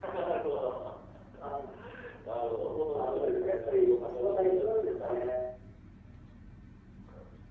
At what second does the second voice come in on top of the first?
3 s

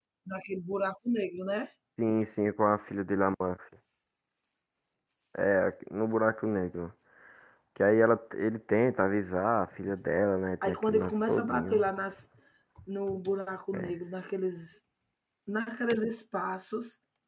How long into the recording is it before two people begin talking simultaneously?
11 s

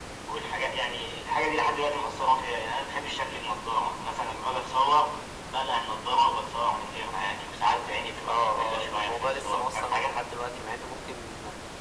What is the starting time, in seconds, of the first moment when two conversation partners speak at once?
8 s

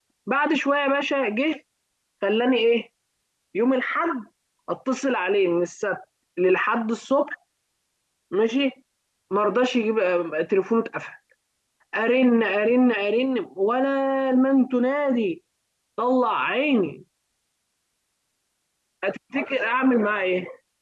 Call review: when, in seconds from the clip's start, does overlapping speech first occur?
none

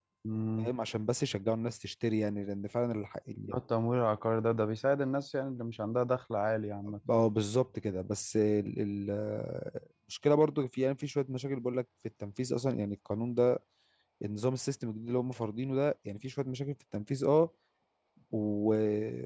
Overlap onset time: none

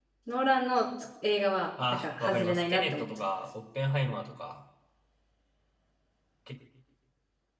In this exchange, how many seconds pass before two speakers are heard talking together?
2 s

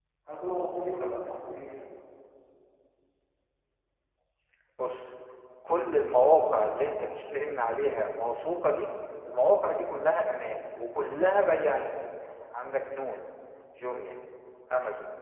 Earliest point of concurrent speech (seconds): none

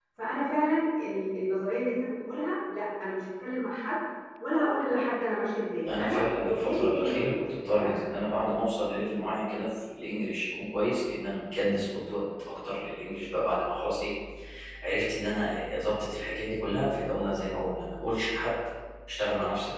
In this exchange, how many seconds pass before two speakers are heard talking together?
6 s

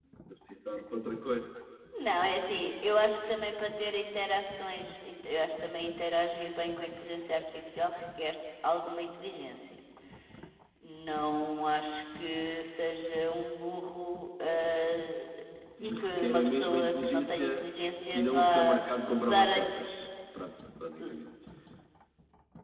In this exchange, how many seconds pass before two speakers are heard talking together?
16 s

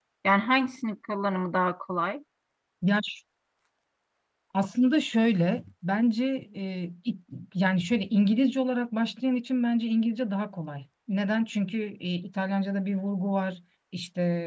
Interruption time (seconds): none

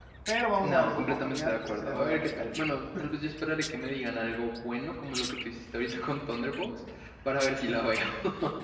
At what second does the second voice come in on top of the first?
1 s

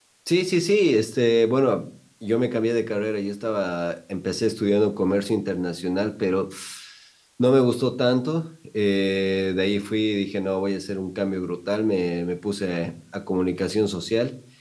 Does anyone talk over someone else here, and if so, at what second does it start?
none

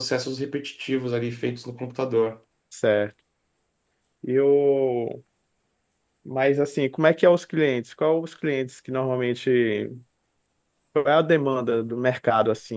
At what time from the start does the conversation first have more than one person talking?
none

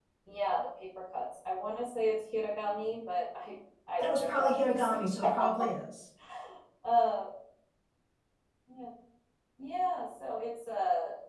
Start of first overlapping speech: 4 s

